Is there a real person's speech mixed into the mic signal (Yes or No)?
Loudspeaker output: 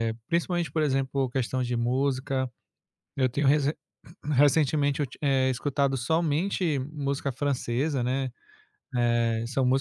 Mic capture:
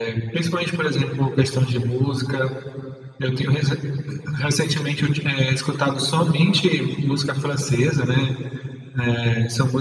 No